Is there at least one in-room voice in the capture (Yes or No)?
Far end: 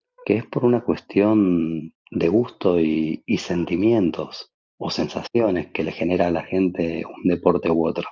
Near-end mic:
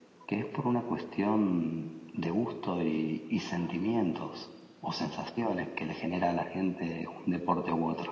No